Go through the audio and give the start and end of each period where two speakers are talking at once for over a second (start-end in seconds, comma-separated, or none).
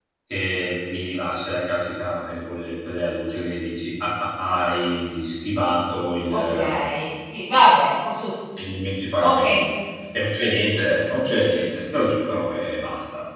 none